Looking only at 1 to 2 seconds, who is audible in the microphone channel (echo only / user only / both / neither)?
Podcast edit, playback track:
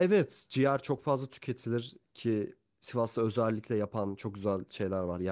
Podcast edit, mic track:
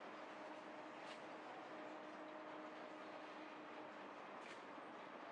neither